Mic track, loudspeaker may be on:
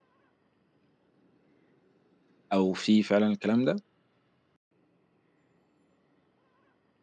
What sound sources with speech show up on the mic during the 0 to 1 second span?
neither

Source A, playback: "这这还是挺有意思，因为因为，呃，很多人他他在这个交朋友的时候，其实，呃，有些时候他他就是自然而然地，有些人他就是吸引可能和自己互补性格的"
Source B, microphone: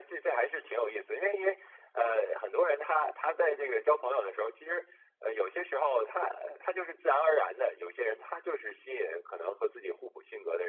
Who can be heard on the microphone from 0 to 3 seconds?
echo only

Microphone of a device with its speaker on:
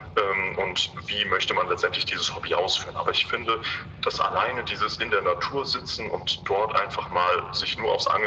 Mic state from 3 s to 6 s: echo only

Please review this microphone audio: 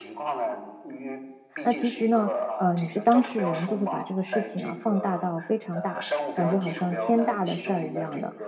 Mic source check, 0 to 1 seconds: echo only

